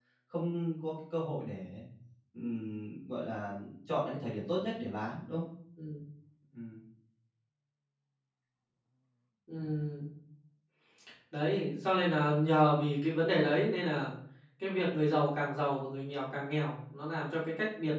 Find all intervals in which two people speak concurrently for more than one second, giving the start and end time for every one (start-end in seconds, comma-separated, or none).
none